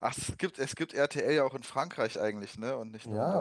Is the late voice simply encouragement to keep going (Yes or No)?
No